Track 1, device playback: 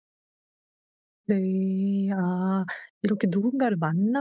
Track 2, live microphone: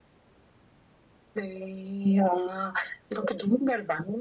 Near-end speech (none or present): none